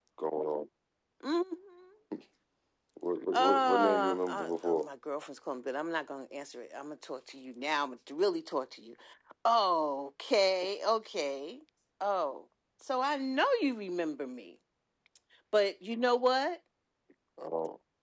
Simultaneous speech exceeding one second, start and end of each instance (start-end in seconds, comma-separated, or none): 3.3-4.9